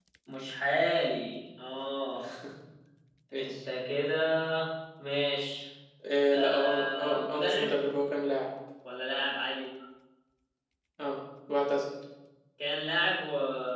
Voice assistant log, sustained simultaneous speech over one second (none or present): present